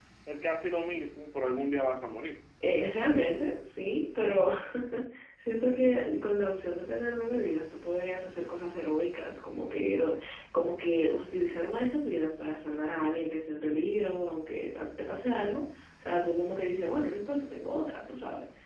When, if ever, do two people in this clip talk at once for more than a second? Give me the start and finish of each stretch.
none

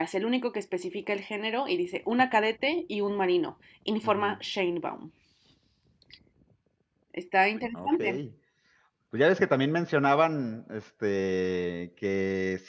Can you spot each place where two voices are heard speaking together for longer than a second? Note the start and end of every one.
none

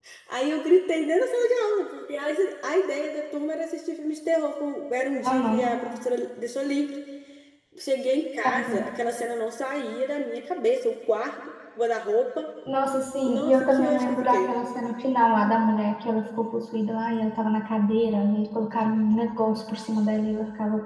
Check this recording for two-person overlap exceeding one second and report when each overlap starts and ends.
13.3-14.5

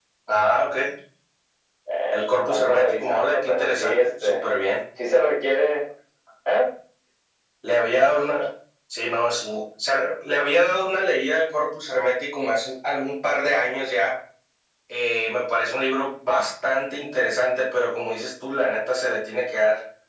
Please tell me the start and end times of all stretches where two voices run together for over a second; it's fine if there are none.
2.1-4.3

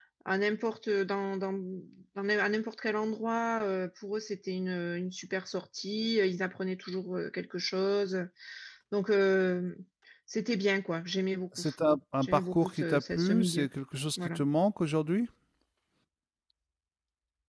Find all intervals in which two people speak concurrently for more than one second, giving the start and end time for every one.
12.2-13.7

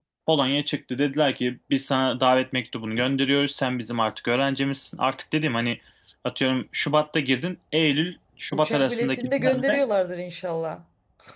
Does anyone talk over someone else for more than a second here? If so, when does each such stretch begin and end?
8.5-9.9

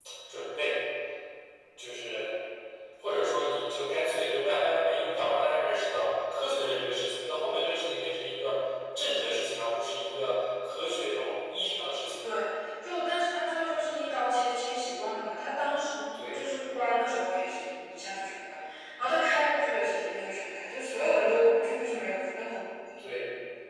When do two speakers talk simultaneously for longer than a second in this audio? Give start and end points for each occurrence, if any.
none

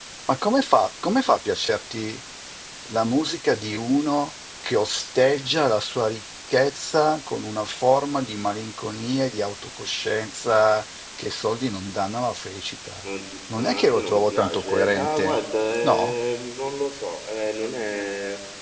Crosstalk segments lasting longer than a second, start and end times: 13.6-15.4

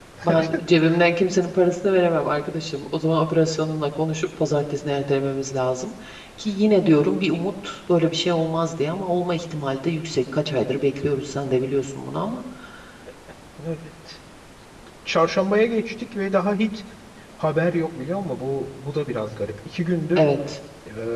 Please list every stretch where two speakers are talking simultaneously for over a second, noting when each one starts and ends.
none

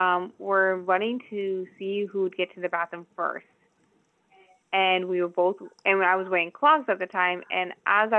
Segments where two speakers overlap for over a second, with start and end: none

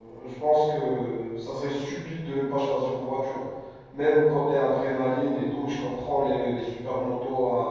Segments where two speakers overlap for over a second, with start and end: none

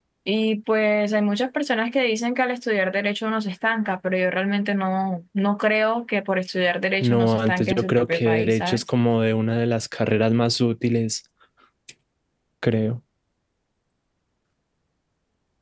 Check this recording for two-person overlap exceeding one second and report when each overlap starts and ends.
7.0-8.8

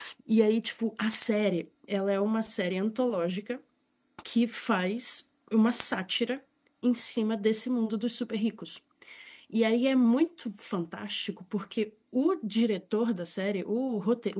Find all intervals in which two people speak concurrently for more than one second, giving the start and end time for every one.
none

